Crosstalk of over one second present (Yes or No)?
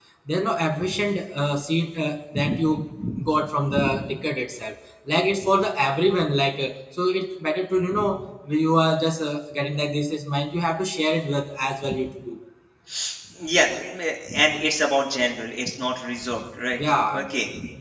No